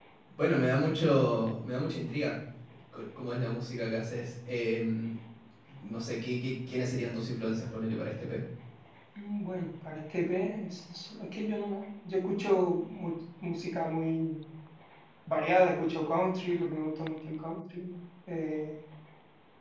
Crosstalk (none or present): none